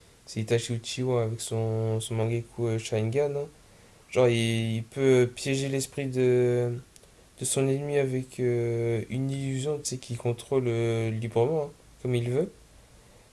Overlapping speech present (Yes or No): No